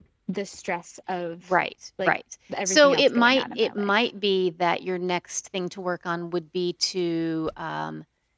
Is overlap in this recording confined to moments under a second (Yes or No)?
No